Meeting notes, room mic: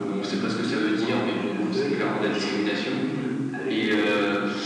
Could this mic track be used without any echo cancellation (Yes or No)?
No